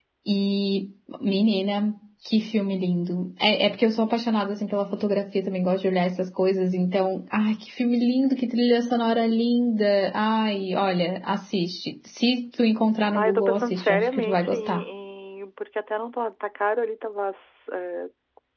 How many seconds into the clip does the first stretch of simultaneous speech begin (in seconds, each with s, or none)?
13.2 s